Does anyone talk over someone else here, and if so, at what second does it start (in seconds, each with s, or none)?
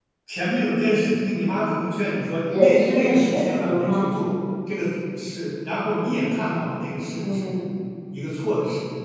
2.5 s